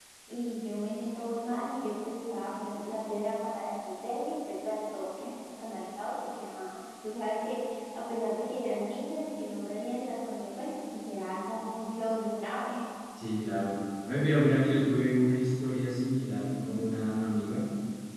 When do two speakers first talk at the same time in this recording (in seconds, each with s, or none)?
none